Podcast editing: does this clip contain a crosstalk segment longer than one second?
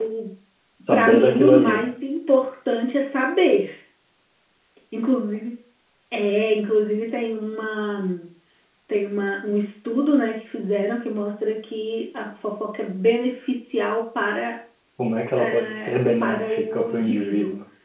Yes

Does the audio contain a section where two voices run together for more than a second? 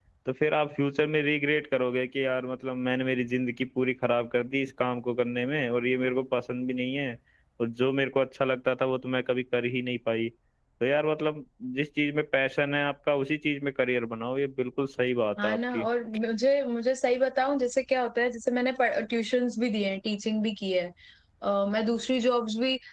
No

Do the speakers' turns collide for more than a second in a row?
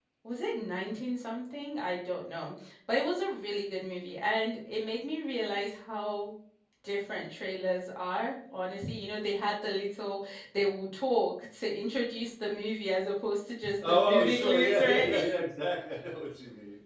Yes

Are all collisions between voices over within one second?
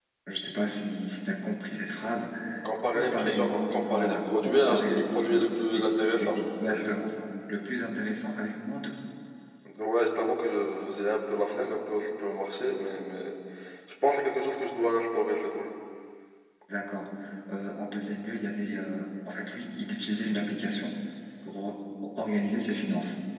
No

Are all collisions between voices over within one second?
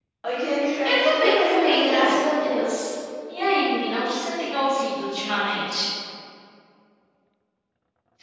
No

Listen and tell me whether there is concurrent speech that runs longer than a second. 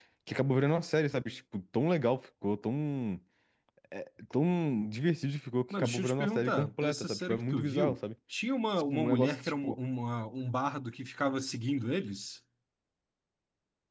Yes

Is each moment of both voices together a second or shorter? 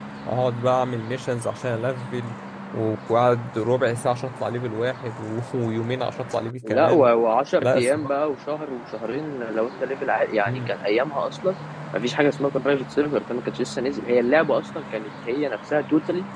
Yes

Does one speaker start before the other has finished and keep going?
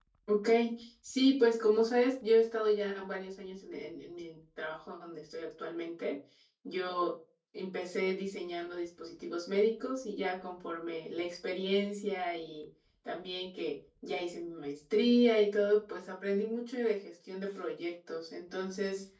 No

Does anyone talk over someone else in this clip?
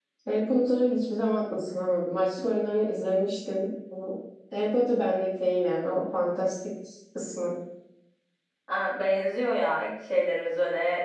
No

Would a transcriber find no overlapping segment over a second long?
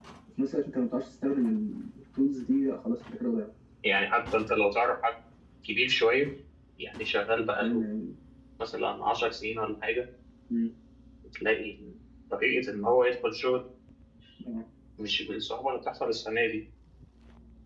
Yes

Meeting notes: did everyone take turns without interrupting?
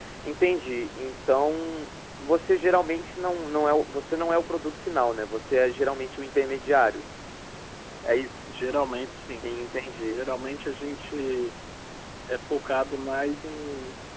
Yes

